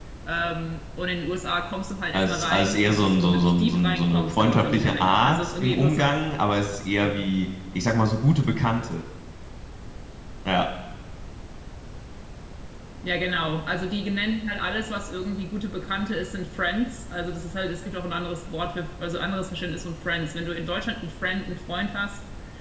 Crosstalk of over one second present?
Yes, from 2.1 s

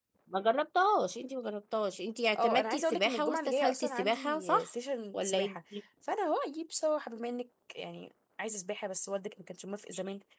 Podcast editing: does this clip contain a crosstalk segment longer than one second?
Yes, from 2.4 s

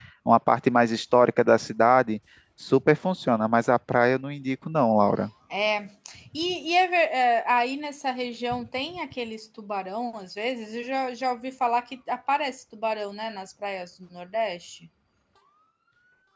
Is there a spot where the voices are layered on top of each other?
No

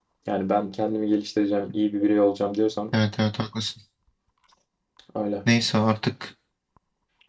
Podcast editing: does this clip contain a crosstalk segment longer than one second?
No

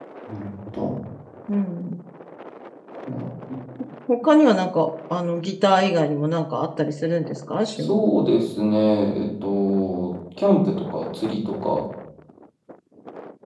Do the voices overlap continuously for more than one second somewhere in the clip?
No

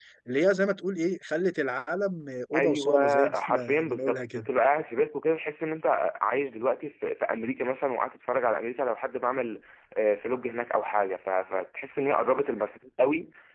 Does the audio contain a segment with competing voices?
Yes, from 2.5 s

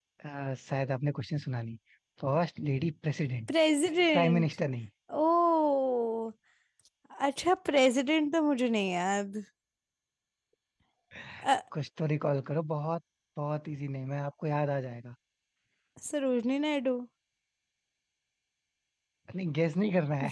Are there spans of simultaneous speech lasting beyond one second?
No

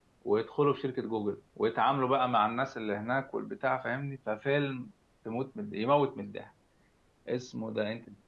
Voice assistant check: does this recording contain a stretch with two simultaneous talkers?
No

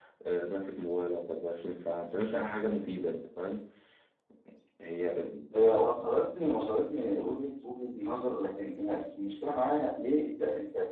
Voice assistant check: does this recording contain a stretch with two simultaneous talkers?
No

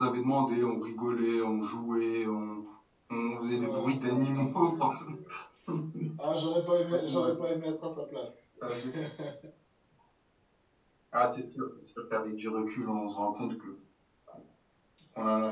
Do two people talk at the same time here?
Yes, from 3.5 s

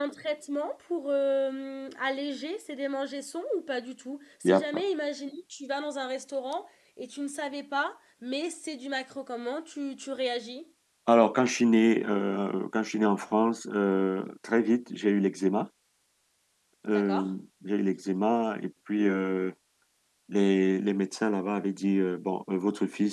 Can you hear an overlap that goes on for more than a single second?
No

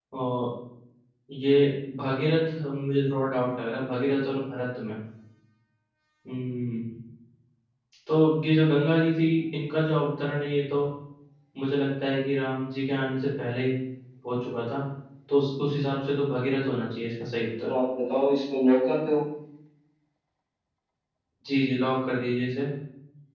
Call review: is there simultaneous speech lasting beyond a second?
No

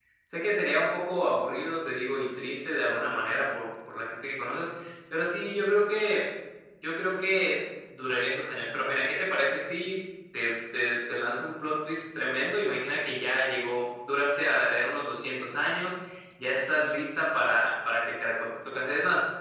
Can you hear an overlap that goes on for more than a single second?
No

